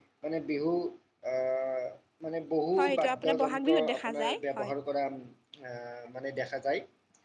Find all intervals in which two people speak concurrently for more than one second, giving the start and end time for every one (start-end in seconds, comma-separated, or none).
2.8-4.7